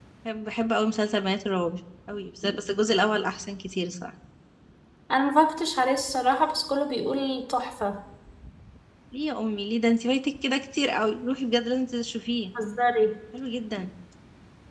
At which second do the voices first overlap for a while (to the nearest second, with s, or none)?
none